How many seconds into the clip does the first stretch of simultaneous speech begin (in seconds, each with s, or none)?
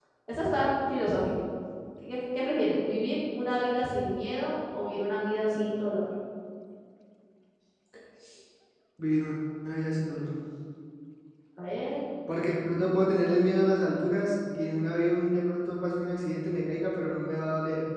none